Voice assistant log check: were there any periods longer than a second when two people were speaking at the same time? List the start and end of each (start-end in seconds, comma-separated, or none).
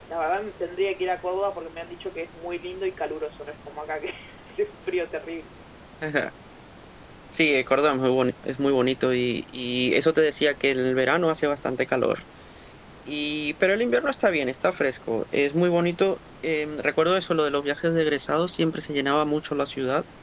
none